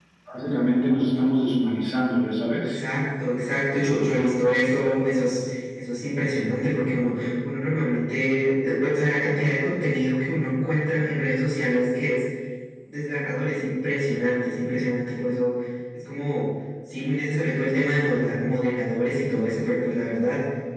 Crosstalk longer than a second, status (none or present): none